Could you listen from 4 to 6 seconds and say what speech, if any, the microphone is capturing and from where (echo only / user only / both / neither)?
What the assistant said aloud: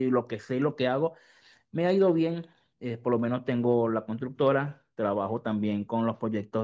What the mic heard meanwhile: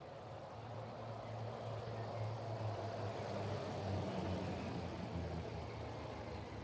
neither